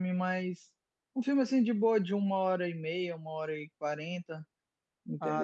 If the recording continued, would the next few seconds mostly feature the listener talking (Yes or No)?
Yes